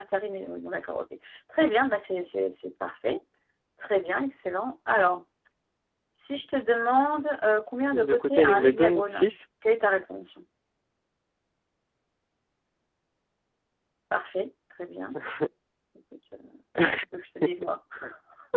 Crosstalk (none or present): present